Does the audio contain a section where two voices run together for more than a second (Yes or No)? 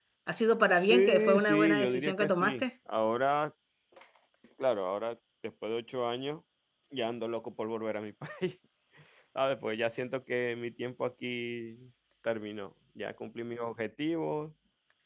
Yes